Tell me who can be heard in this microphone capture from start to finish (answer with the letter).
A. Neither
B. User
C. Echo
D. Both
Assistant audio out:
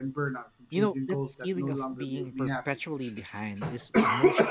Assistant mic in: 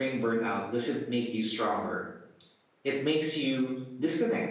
B